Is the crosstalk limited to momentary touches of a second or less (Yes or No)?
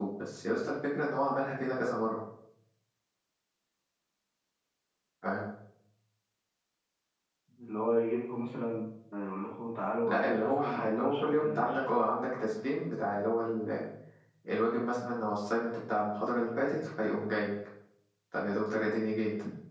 No